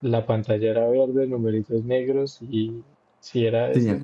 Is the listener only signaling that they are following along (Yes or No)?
Yes